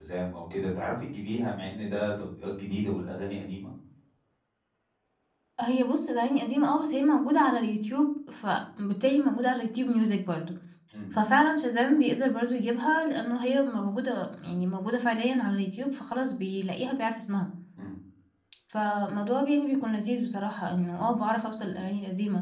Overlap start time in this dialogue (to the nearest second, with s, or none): none